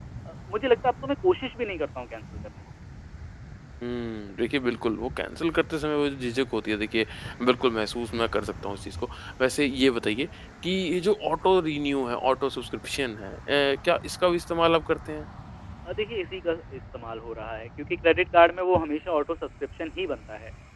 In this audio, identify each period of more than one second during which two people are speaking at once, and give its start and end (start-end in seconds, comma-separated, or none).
none